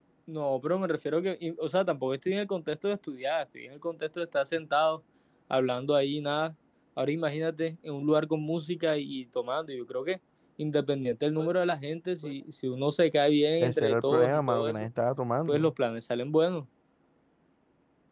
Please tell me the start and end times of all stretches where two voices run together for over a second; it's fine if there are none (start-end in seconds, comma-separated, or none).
13.6-14.9